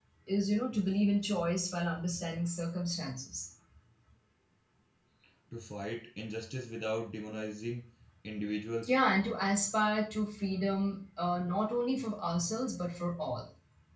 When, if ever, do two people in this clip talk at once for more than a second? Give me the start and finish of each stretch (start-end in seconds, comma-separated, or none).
none